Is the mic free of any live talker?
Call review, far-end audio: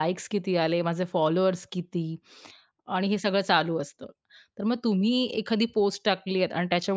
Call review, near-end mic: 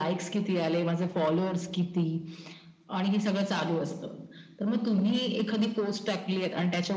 Yes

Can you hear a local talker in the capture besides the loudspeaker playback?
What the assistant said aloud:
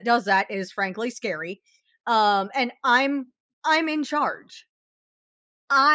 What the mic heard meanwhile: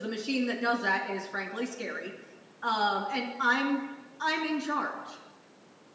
No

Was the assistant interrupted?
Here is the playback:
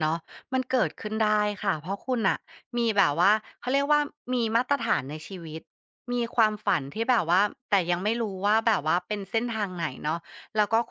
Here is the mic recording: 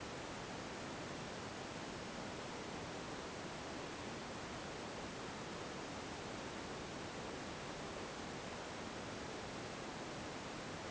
No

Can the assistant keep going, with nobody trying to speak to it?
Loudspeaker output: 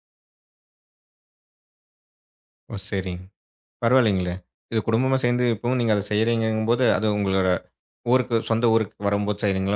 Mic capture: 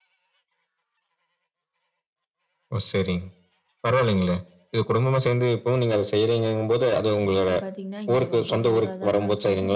No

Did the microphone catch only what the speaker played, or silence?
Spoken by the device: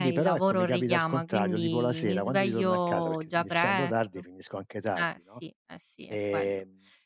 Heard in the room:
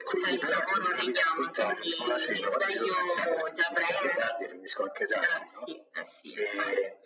Yes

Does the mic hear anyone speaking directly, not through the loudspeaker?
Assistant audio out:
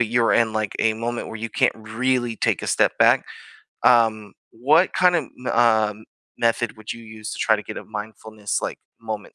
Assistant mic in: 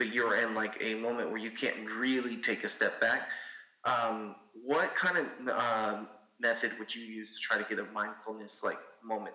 No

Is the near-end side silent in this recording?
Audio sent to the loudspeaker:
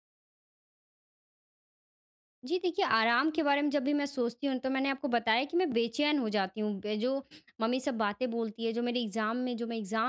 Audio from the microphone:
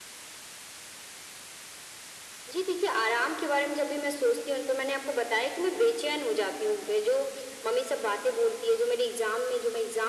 Yes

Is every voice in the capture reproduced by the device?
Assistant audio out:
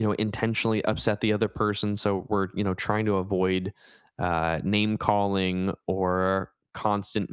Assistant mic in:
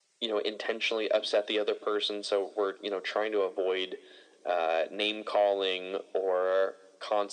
Yes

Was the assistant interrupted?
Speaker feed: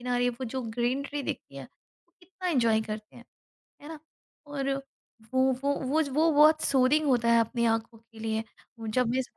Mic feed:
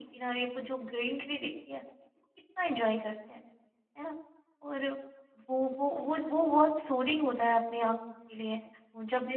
Yes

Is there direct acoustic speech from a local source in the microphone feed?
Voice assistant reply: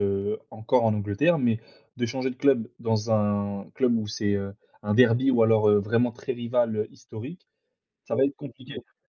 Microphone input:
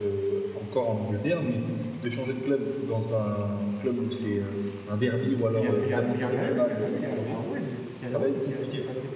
Yes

